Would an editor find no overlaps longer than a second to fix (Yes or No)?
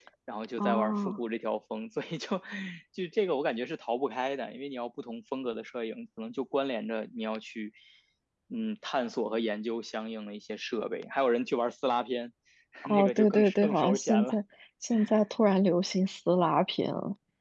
No